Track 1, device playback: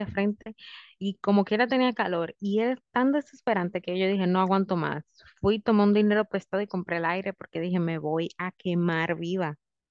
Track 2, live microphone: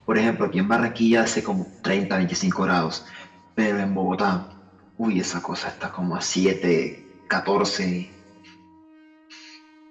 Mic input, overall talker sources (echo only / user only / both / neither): user only